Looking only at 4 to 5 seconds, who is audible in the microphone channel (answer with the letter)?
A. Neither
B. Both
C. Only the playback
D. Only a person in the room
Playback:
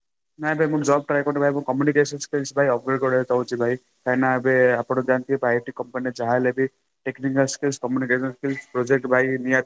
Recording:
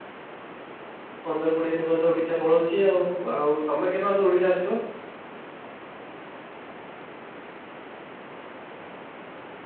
D